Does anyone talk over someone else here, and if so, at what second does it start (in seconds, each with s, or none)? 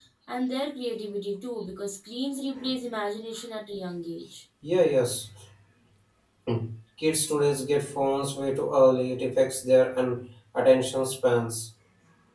none